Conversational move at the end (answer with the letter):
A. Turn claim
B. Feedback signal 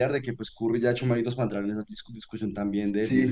A